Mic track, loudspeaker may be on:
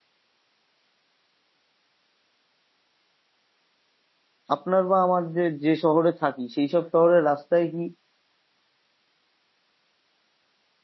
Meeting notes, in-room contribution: present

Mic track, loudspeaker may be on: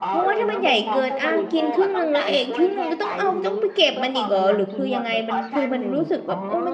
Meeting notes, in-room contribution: present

